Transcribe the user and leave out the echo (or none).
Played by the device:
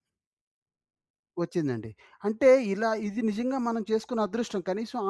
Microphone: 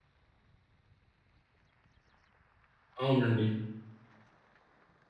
అవునండి.